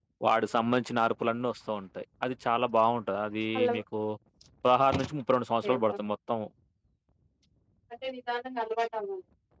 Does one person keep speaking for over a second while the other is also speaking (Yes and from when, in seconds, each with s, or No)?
No